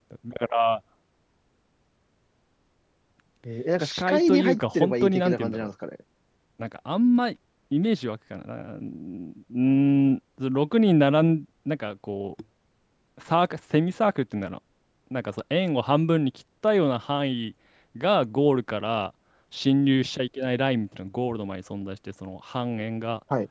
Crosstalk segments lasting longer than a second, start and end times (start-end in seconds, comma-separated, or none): 3.8-5.7